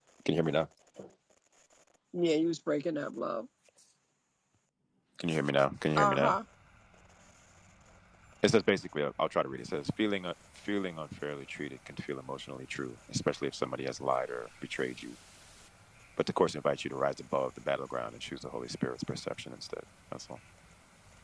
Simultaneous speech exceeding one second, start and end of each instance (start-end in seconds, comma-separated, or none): none